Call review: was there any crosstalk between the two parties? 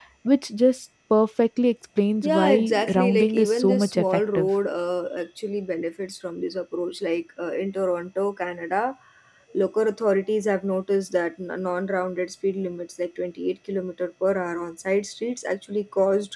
Yes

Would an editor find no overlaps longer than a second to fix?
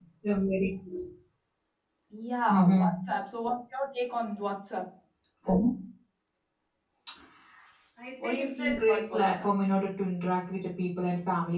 No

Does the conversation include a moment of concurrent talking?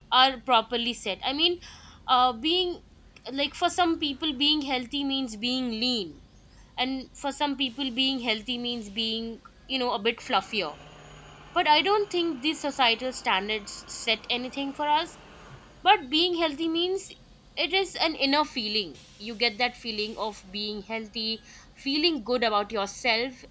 No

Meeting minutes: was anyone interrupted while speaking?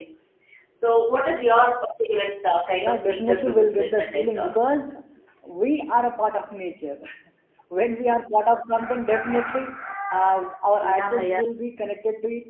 Yes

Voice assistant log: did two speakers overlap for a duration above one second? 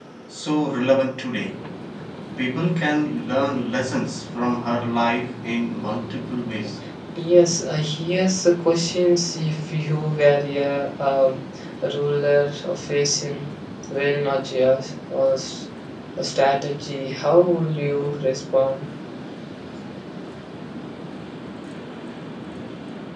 No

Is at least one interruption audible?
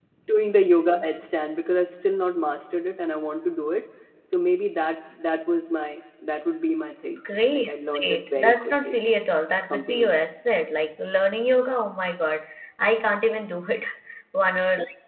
Yes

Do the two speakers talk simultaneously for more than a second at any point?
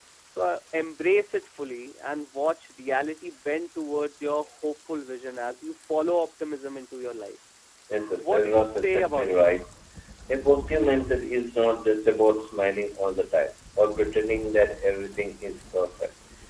Yes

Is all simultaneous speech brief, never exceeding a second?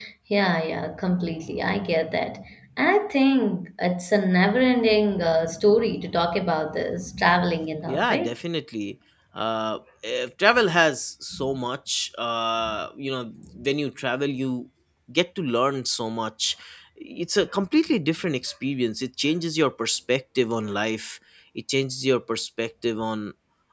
Yes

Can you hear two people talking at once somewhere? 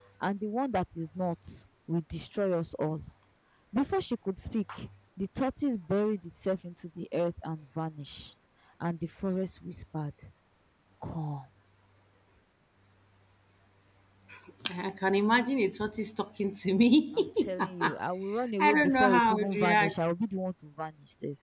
Yes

